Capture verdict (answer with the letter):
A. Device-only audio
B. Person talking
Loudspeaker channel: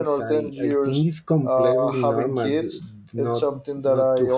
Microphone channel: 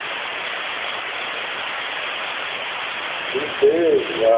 B